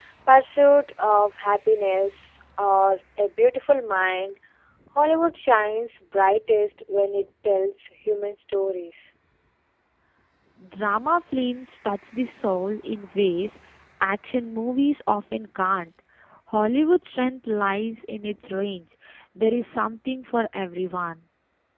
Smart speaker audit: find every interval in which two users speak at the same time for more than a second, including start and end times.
none

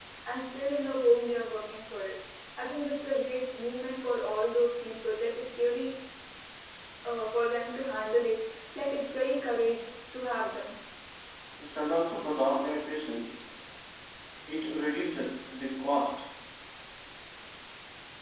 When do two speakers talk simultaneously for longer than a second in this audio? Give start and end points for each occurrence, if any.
none

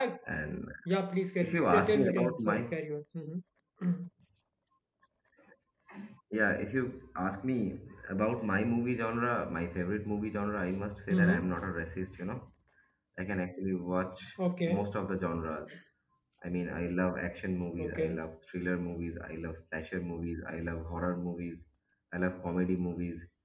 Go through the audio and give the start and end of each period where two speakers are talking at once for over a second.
1.4-2.7

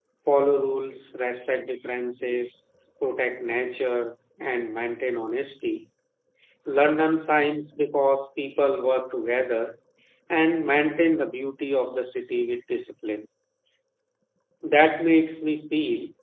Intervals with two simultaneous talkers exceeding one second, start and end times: none

